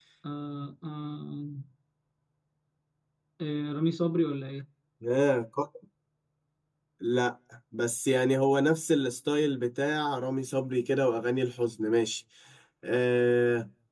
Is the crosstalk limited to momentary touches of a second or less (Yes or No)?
Yes